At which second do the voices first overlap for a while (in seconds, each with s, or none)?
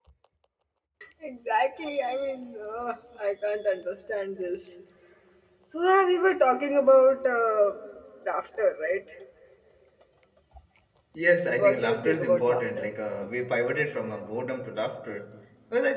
11.6 s